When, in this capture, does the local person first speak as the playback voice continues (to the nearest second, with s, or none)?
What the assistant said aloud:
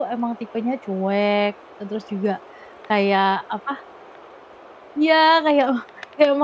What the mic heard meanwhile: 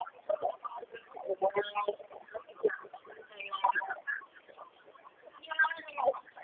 none